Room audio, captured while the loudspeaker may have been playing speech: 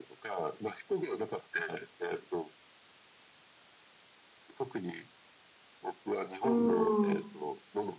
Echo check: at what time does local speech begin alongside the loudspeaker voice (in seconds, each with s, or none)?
6.4 s